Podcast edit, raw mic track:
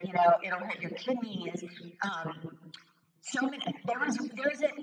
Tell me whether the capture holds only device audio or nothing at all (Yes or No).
Yes